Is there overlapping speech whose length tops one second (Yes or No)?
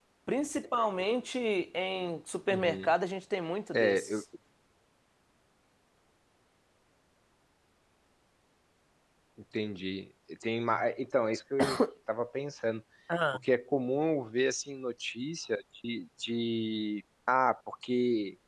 No